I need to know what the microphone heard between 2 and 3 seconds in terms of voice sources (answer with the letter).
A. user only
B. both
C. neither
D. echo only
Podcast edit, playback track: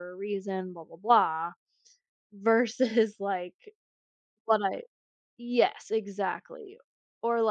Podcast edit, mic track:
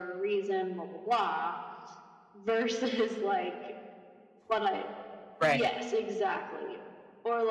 D